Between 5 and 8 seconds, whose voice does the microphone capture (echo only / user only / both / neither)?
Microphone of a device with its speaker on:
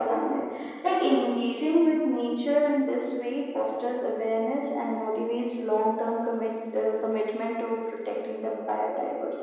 echo only